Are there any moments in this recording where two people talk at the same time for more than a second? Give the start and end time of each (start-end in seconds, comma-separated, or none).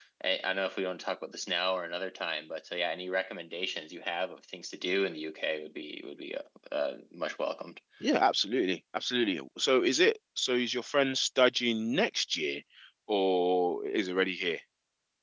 none